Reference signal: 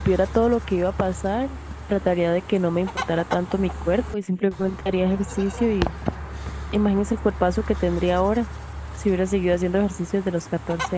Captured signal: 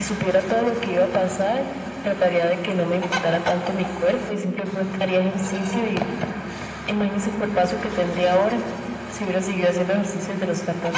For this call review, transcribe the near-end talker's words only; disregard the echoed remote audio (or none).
none